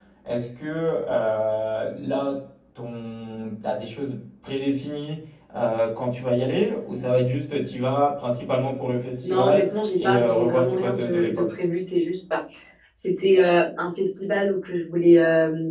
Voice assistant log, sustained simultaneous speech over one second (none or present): present